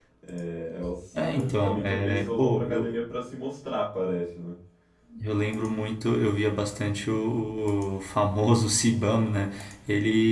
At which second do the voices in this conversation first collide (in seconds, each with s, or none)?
1.4 s